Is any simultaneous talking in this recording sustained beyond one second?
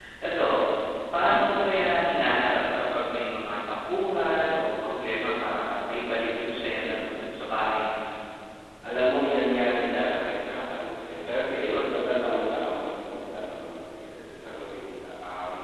No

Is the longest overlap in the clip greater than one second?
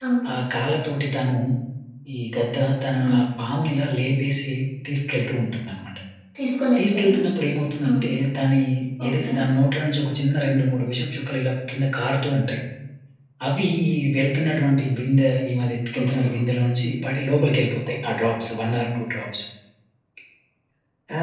No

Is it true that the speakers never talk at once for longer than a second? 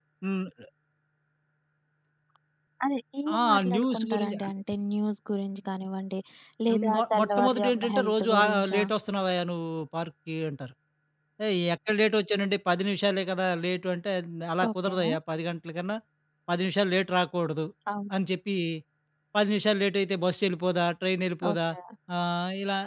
No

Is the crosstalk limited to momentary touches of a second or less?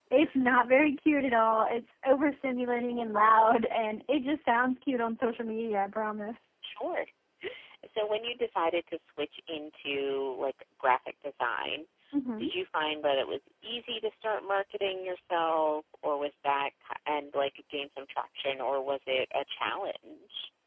Yes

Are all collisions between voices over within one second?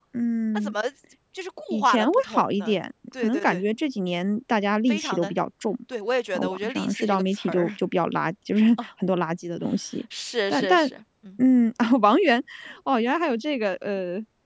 No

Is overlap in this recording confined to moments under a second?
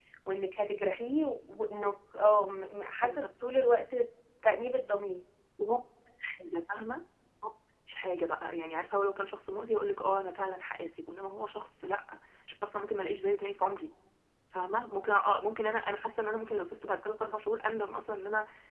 Yes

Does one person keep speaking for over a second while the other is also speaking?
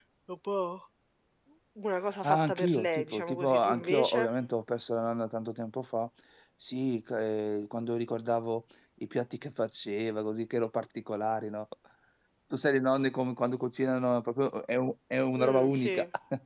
Yes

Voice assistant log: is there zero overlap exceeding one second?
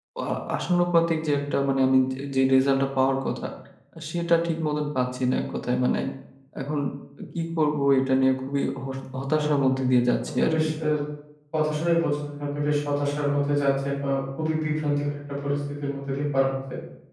Yes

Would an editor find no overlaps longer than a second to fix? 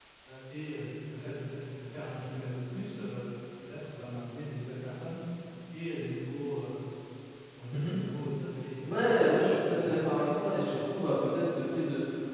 No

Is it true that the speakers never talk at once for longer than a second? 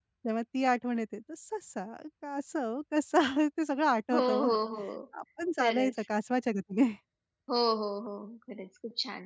Yes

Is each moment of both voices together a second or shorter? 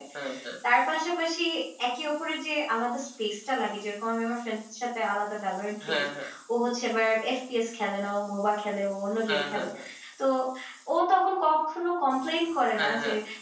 Yes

